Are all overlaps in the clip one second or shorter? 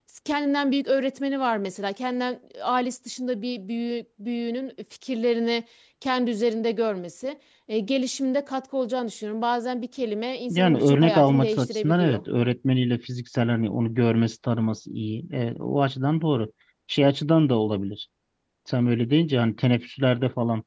No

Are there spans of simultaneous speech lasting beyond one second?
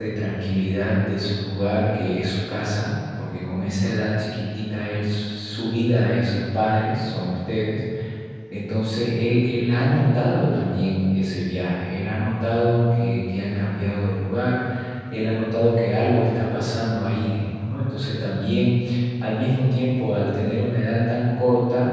No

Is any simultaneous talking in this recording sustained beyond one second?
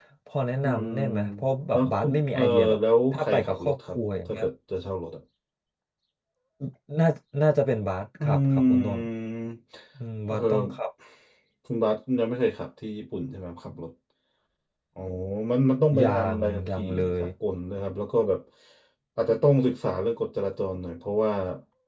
Yes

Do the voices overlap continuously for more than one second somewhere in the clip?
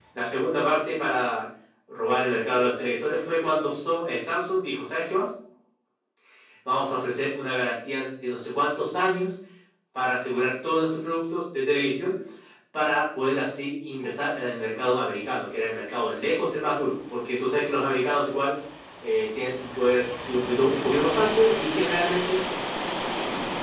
No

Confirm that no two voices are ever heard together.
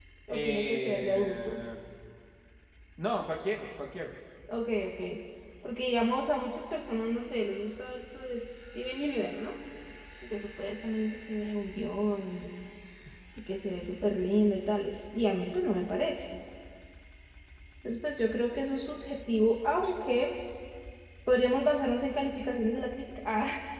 No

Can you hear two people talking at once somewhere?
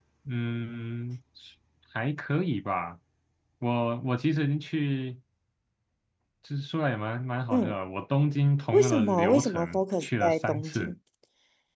Yes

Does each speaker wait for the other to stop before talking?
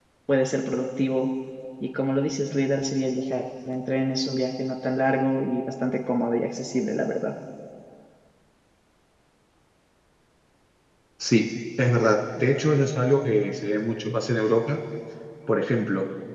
Yes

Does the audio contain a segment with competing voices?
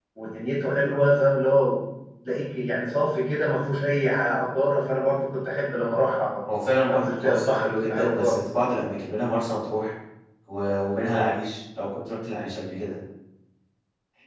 Yes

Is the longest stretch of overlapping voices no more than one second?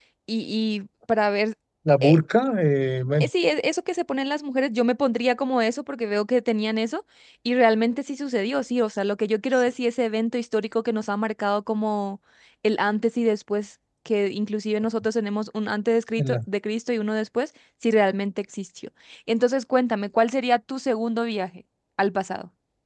Yes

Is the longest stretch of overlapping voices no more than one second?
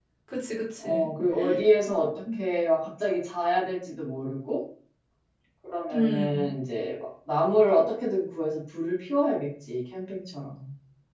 Yes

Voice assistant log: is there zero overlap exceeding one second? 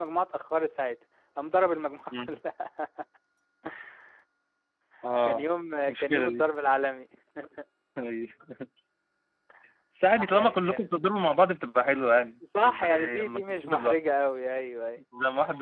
No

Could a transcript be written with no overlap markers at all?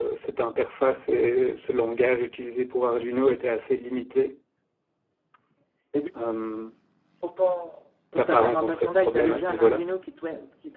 No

